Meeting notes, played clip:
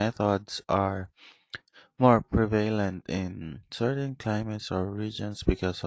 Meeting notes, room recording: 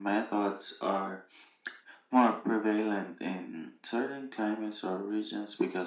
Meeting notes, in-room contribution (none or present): none